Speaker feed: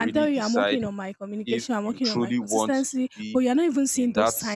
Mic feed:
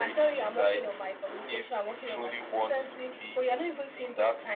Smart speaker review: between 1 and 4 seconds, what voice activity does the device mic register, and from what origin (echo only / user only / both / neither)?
echo only